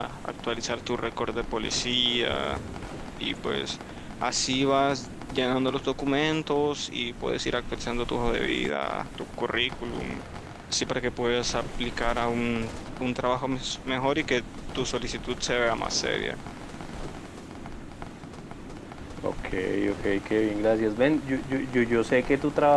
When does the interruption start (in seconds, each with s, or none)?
none